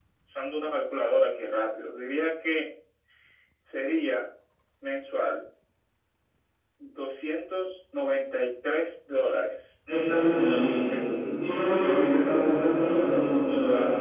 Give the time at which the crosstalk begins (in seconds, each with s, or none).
none